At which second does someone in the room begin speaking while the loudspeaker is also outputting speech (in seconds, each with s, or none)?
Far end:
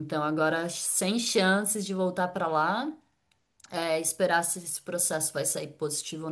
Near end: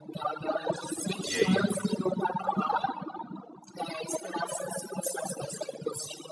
1.2 s